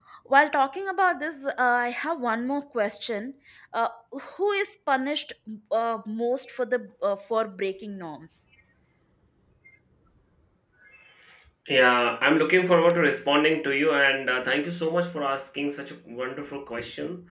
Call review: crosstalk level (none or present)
none